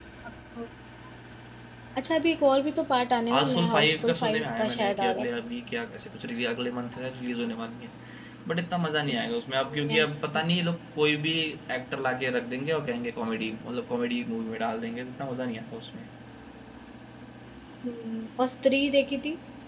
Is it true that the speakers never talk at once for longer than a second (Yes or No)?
No